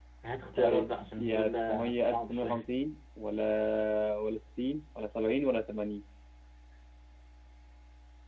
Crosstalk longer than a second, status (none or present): present